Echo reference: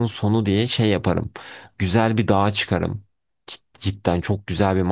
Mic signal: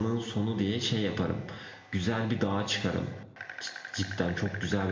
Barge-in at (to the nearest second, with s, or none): none